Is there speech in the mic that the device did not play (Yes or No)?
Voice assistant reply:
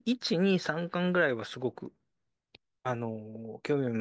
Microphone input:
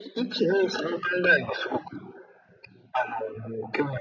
No